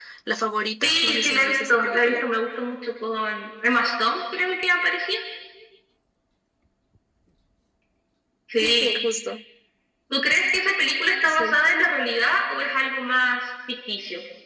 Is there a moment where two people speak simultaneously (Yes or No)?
Yes